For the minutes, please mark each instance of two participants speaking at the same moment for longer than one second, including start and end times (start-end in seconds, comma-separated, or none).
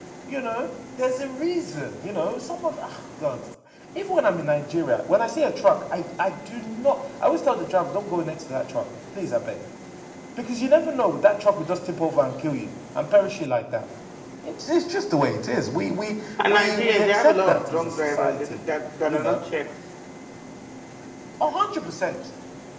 16.5-18.6